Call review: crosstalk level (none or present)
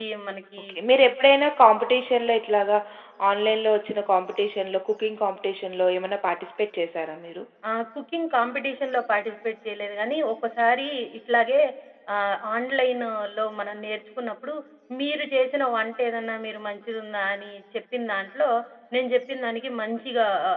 none